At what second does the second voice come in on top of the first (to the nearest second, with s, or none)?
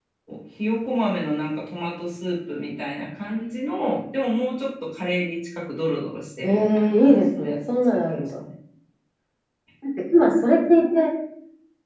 6 s